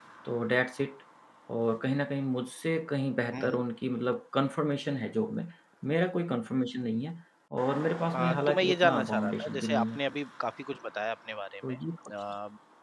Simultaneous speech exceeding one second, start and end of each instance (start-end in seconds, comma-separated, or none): 8.1-10.0